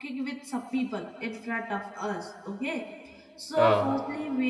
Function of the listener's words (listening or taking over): listening